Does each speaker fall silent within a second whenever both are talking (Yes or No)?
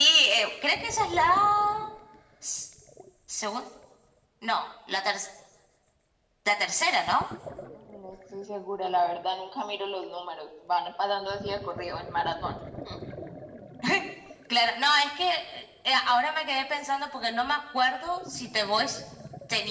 Yes